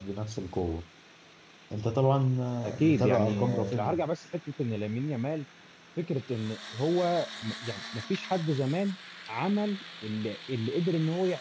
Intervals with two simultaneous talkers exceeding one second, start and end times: 2.8-4.0

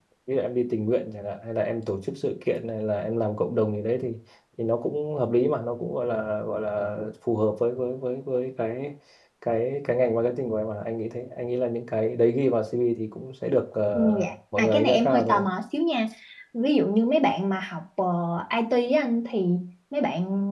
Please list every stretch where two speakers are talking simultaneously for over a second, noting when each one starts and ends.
13.9-15.4

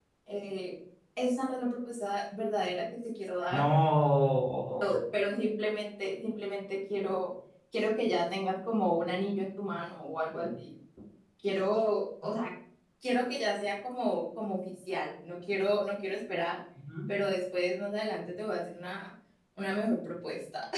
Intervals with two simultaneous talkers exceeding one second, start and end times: none

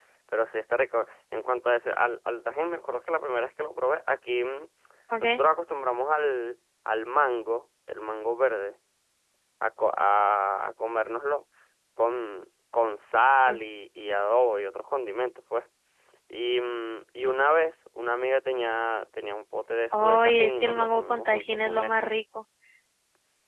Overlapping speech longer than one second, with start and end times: 19.9-22.1

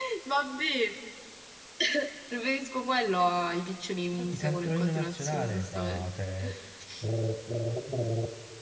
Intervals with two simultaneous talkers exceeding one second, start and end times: 4.2-6.1

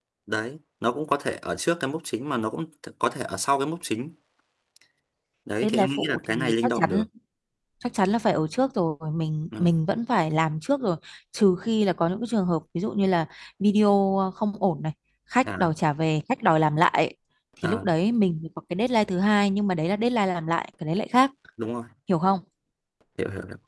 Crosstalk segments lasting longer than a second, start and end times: 5.6-7.0

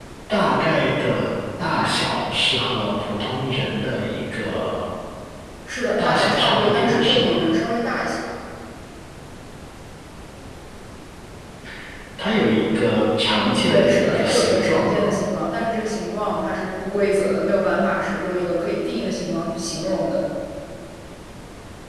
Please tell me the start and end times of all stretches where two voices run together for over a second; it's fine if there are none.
6.0-7.4, 13.4-15.0

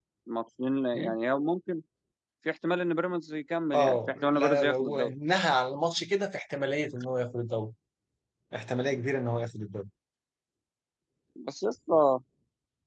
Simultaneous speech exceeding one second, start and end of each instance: 3.7-5.1

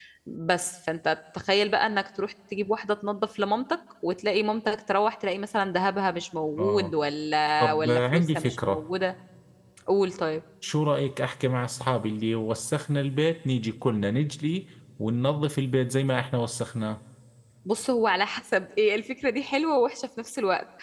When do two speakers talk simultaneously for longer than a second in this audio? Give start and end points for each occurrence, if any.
7.6-8.8

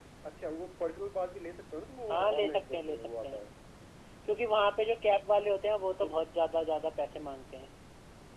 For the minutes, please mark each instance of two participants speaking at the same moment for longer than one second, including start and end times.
2.1-3.4

